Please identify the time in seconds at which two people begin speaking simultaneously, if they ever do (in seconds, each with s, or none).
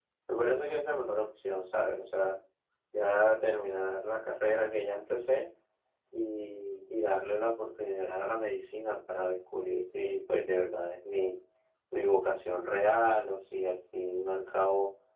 none